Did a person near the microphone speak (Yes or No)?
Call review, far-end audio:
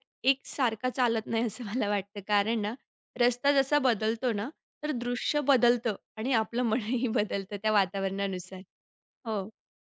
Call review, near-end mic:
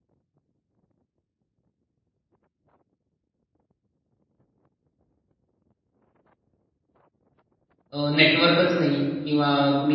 Yes